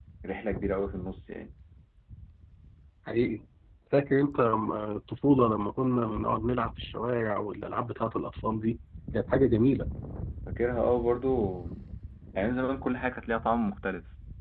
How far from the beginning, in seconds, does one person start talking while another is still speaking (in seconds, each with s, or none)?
none